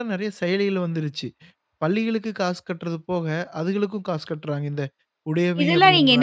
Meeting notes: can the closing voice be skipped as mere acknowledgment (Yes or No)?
No